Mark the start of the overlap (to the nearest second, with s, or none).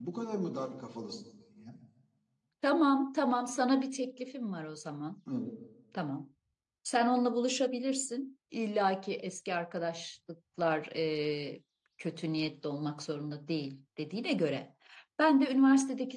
none